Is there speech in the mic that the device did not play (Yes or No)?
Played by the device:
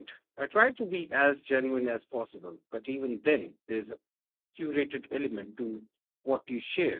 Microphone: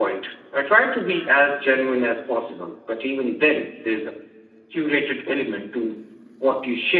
No